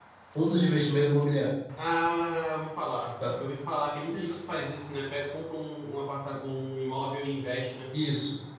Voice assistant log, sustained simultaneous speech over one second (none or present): none